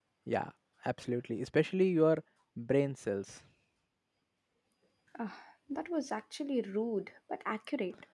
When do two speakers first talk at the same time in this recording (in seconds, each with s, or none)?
none